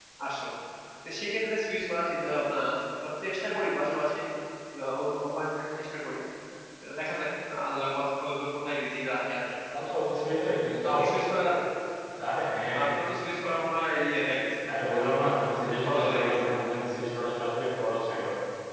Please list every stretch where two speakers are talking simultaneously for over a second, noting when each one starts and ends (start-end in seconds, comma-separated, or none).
14.8-16.4